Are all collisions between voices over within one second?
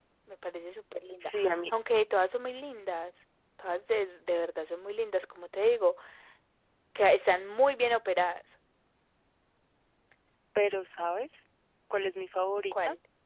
Yes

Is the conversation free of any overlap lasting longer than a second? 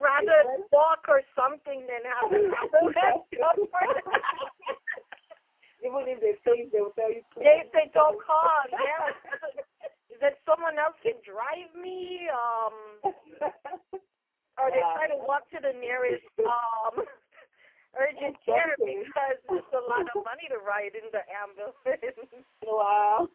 No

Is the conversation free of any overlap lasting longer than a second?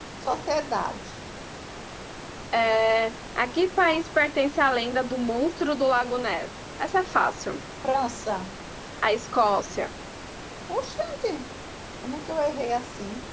Yes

